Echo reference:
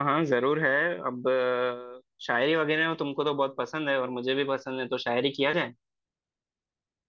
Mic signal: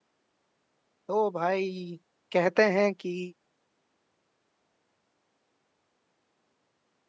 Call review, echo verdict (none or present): none